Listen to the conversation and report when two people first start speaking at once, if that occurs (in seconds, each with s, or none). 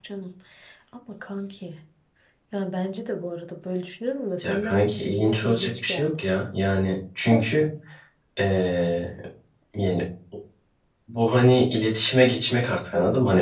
4.4 s